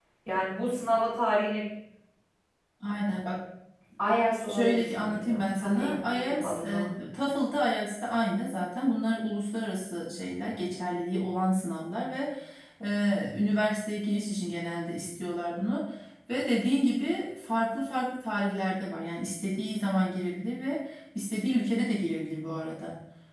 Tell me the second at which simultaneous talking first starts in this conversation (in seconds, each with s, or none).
4.5 s